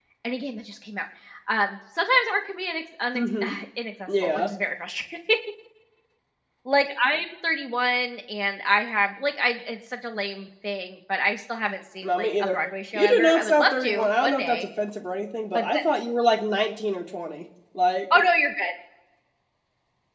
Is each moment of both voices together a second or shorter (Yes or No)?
No